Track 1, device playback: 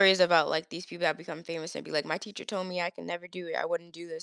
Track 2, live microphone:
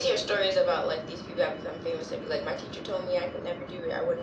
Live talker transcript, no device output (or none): none